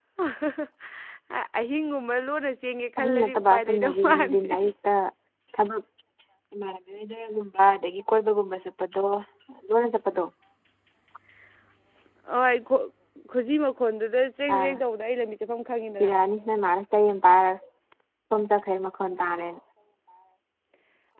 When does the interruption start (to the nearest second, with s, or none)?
3 s